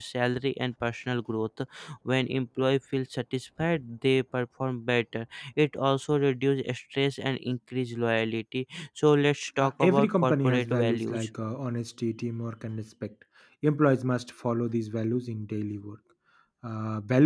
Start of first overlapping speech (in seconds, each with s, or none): 9.6 s